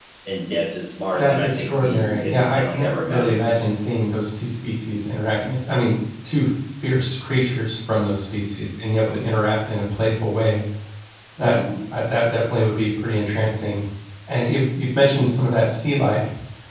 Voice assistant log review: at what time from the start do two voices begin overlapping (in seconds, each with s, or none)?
1.1 s